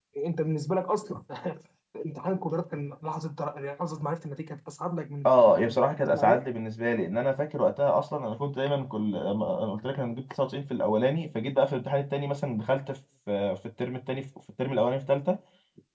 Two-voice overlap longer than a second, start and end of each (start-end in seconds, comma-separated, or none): 5.3-6.5